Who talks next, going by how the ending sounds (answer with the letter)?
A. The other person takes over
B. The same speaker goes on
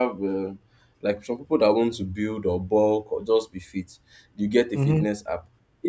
B